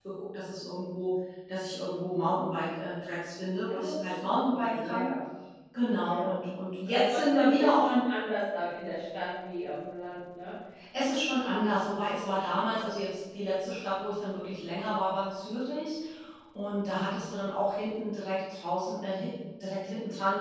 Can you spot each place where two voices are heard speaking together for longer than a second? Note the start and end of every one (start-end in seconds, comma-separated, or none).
3.7-5.1, 6.8-8.1